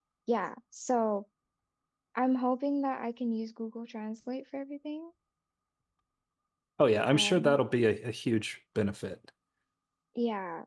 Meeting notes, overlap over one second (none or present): none